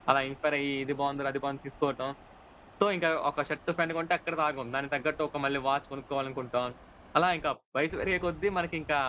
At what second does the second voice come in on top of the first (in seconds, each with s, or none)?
none